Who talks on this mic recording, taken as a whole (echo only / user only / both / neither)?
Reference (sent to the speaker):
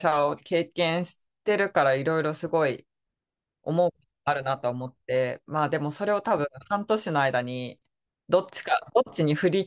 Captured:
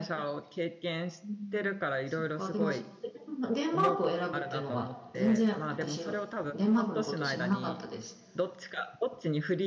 both